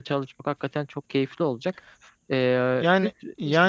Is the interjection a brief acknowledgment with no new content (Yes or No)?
No